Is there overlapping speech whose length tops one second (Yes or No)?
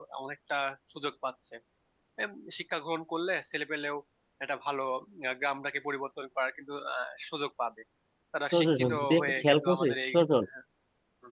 Yes